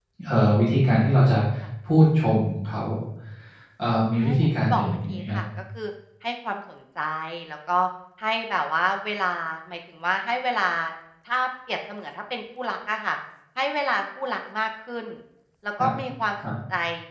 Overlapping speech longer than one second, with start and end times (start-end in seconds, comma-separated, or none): 4.2-5.4